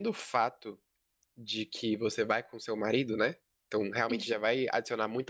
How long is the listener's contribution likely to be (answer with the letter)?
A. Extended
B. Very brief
B